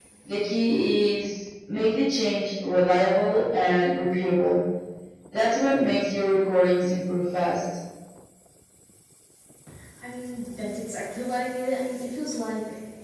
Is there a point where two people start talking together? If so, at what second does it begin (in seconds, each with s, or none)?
none